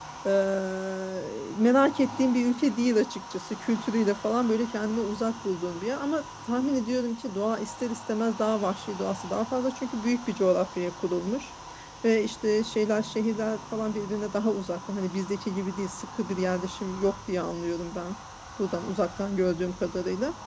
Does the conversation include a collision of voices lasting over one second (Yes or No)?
No